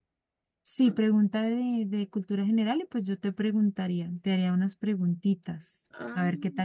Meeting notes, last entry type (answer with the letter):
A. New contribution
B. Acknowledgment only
A